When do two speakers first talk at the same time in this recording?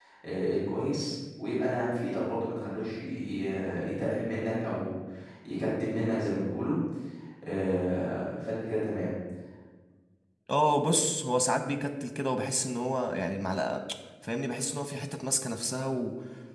none

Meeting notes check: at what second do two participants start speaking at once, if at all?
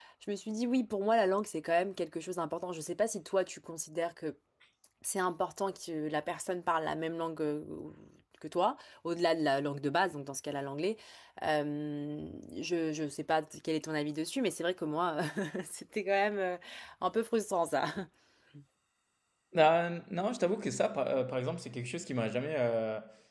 none

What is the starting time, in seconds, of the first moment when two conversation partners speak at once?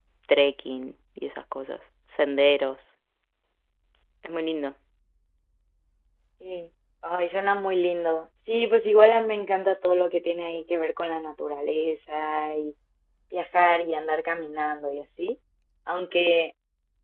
none

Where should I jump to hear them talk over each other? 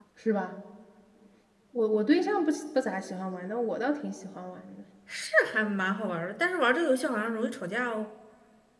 none

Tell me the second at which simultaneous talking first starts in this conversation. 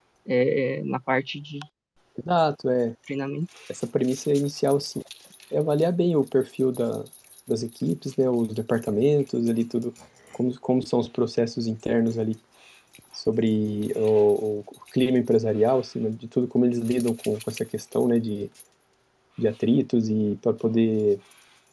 none

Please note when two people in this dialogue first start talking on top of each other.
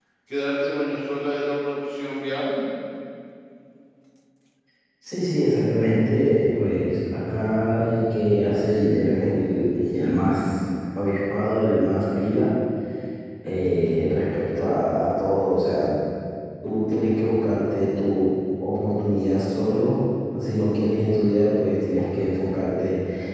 none

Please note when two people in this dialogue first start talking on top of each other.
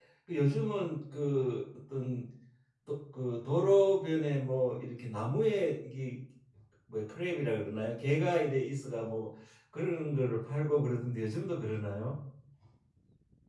none

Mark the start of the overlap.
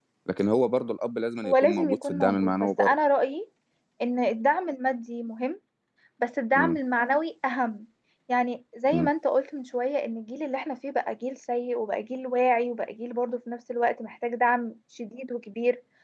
1.4 s

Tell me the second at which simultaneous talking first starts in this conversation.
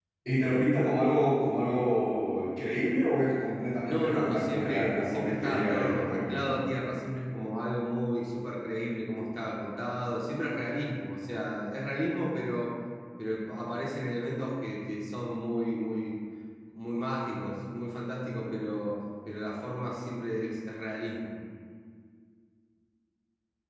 3.9 s

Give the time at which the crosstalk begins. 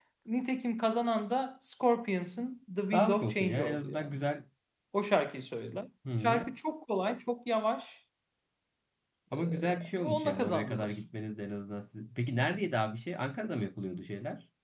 2.9 s

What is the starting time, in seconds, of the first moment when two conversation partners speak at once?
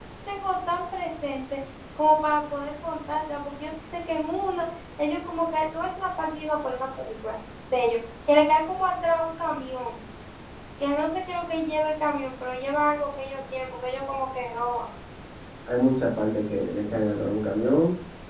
none

